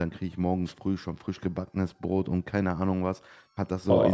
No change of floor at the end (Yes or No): Yes